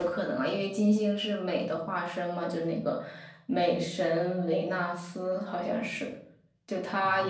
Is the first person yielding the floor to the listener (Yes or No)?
No